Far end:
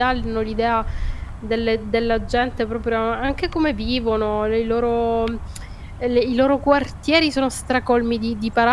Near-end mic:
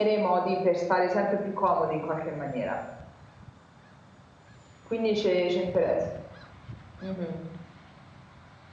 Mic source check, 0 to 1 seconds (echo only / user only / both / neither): user only